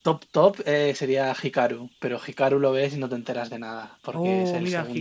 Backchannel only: No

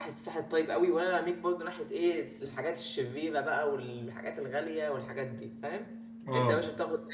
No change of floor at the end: Yes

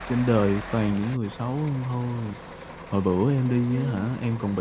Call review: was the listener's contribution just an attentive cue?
Yes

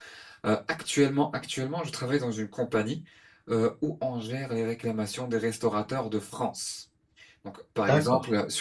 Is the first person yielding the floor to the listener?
No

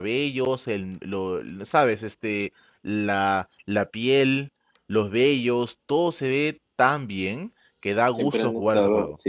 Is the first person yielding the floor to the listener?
Yes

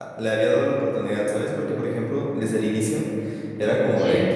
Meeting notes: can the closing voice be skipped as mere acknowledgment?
Yes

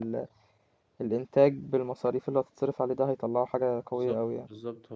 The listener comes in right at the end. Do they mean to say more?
Yes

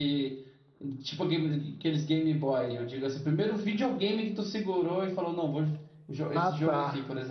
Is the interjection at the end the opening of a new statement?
Yes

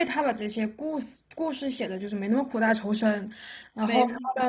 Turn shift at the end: No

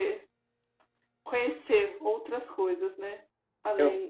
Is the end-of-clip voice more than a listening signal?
Yes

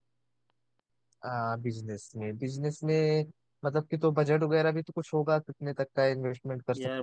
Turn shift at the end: Yes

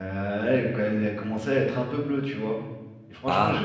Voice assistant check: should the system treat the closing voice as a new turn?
No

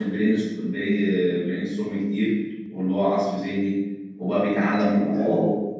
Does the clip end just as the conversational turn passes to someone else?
No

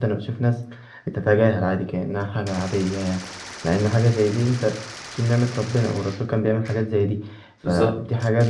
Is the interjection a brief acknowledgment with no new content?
Yes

